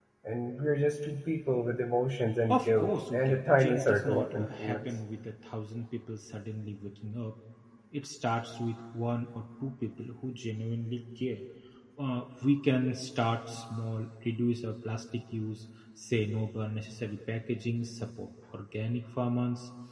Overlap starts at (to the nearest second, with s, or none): 2 s